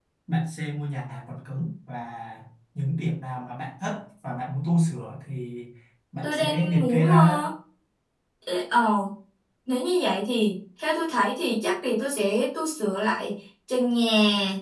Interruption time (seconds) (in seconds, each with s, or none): 6.2 s